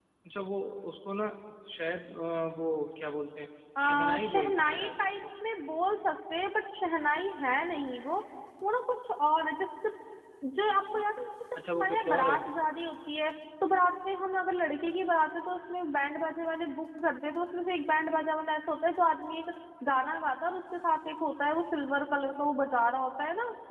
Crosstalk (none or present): present